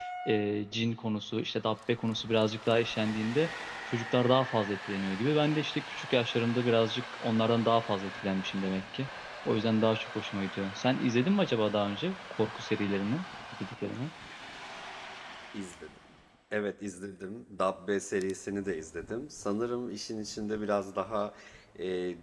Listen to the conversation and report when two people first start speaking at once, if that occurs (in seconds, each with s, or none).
none